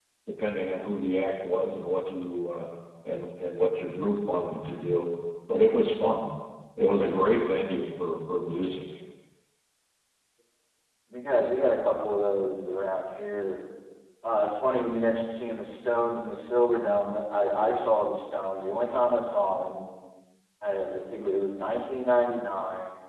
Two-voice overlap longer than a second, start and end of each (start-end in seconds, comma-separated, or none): none